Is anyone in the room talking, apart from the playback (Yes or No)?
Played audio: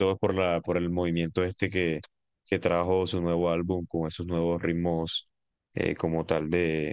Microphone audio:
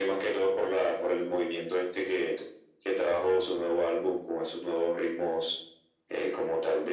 No